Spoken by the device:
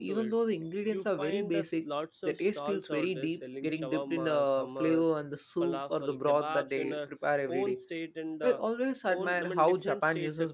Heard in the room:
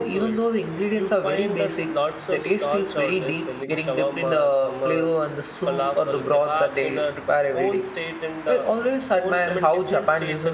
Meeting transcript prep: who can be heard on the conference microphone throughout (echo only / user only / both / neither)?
echo only